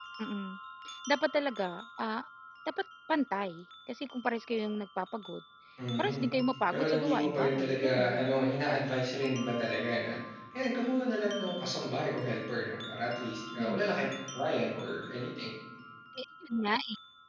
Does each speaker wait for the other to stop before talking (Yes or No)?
No